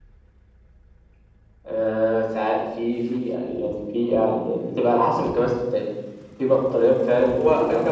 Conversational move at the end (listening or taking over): taking over